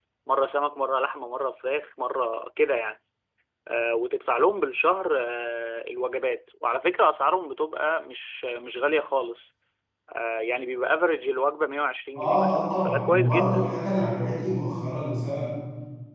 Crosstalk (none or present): present